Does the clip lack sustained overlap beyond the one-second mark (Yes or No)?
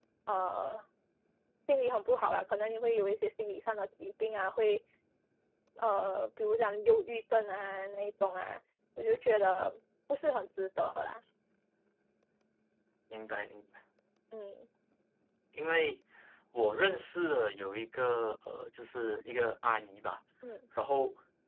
Yes